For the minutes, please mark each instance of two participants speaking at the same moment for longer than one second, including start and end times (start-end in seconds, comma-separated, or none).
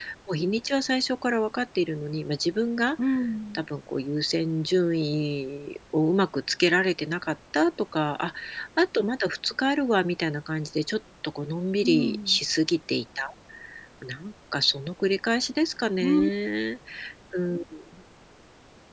none